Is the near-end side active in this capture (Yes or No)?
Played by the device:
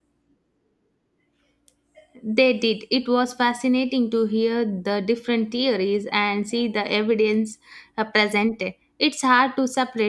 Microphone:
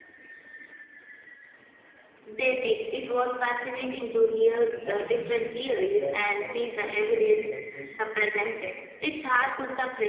Yes